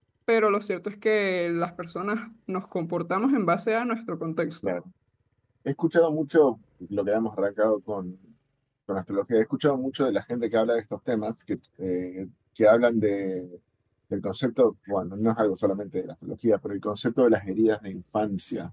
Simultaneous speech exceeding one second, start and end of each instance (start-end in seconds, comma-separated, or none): none